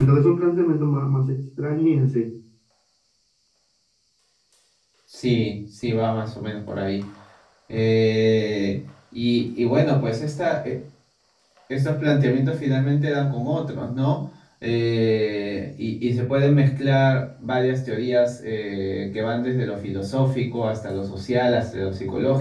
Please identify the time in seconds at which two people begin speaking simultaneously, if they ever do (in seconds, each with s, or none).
none